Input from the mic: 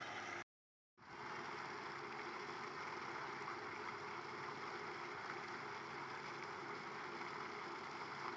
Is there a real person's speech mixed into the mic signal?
No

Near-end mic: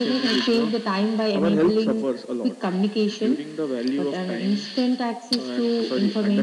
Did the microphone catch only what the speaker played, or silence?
Yes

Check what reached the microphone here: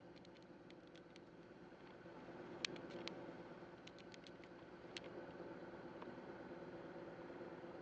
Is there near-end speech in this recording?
No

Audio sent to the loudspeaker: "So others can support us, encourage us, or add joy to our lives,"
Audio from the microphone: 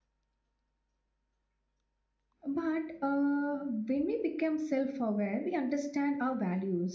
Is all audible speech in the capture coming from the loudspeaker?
No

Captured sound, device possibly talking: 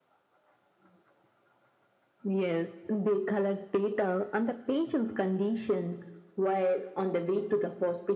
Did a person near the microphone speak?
No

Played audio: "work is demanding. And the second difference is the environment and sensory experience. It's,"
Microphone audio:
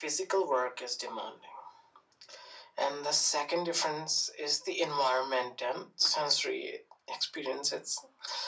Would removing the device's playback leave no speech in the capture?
Yes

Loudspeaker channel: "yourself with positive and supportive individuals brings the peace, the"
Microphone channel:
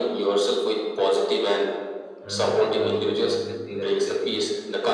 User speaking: Yes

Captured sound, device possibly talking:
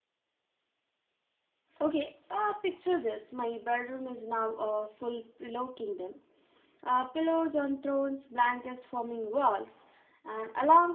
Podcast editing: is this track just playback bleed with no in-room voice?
No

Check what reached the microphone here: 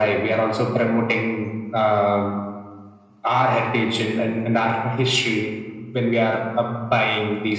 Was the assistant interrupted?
No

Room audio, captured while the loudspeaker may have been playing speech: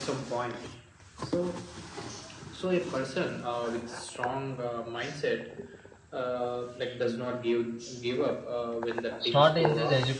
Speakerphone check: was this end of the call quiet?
No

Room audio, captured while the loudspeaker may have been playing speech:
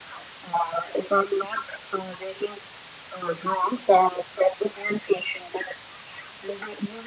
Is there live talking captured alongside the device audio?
No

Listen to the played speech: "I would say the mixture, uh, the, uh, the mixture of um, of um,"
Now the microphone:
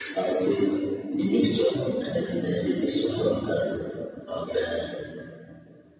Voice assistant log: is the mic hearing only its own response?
Yes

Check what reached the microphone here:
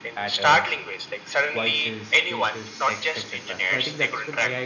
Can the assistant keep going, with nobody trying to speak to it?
No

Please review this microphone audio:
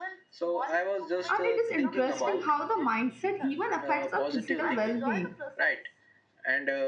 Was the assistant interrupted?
Yes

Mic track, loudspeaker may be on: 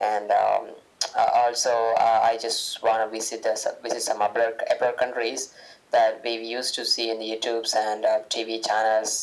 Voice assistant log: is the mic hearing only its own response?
Yes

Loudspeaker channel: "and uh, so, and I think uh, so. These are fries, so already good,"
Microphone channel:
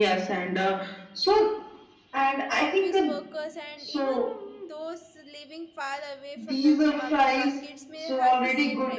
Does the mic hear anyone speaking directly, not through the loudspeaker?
Yes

